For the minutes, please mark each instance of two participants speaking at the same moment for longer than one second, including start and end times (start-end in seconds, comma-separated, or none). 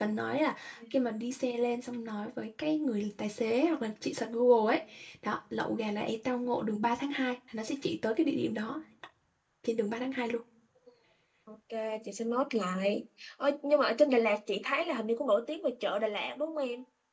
none